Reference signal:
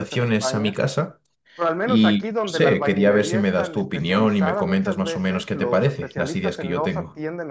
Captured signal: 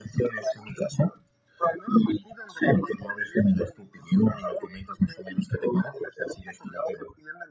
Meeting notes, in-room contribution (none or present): none